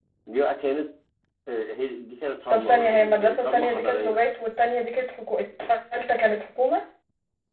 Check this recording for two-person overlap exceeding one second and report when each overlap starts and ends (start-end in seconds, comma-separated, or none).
2.5-4.2